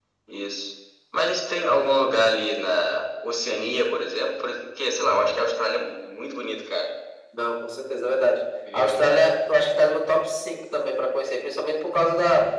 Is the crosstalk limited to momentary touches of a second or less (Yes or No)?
Yes